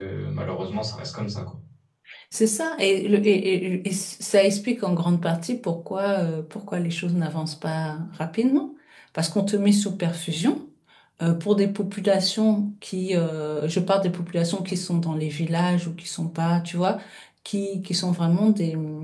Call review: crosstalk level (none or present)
none